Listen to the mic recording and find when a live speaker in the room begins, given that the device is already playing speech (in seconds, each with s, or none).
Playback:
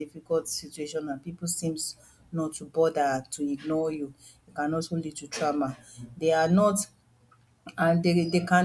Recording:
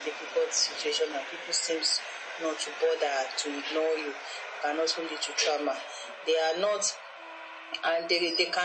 none